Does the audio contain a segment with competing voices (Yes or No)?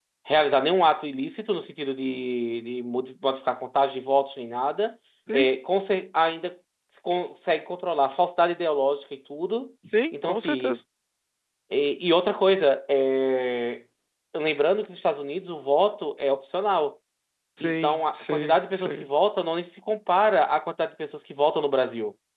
Yes